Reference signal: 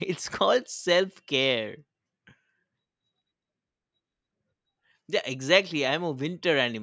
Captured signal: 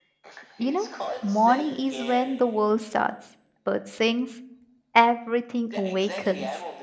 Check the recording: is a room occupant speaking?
Yes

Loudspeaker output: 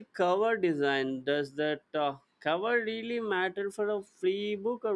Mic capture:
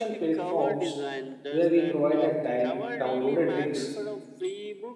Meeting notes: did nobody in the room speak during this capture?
No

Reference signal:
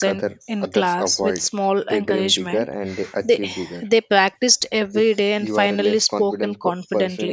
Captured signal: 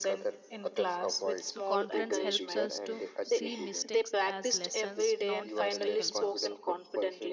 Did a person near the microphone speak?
Yes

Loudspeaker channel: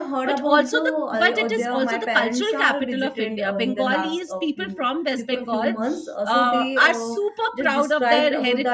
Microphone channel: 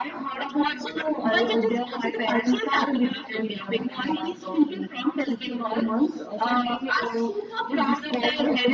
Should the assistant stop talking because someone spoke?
No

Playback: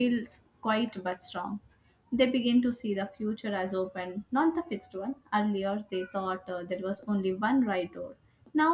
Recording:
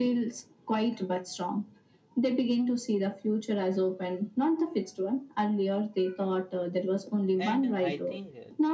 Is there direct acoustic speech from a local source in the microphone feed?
Yes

